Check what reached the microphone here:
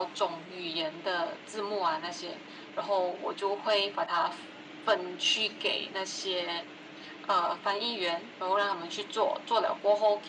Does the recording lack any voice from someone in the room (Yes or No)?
Yes